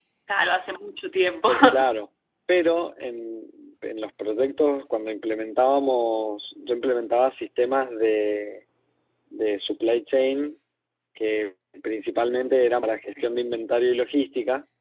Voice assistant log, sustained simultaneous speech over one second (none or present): none